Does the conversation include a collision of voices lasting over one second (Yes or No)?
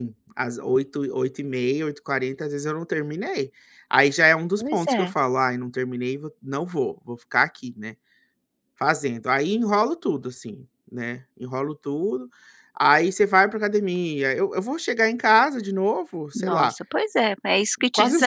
No